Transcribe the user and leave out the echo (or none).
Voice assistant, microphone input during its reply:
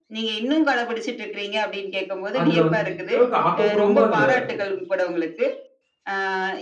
அதுல வந்து எந்த அளவுக்கு ஆக்கப்பூர்வமா அதுல